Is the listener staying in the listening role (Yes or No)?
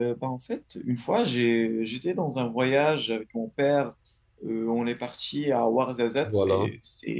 Yes